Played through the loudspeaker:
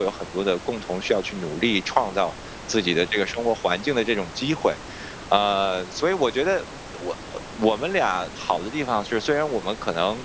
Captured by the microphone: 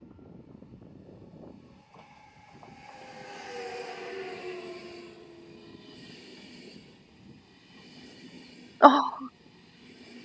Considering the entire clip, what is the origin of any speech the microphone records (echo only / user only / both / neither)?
user only